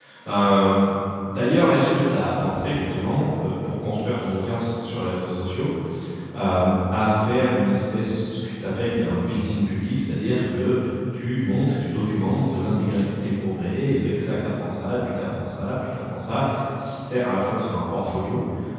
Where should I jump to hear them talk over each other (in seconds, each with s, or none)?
none